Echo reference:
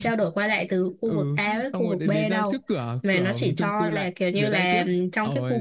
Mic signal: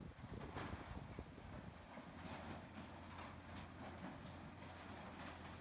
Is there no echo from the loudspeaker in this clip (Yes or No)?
Yes